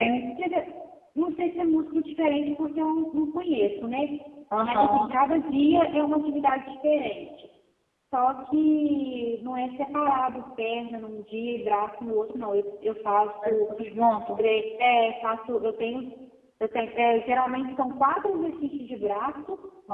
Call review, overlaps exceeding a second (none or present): none